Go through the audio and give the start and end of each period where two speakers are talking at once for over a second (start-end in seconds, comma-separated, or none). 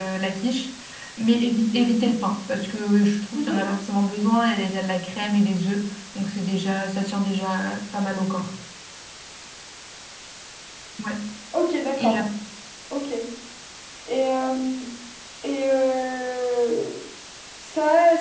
none